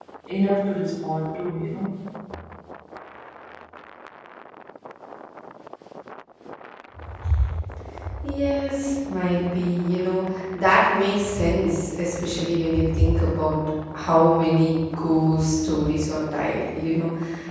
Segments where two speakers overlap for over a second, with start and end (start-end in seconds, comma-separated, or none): none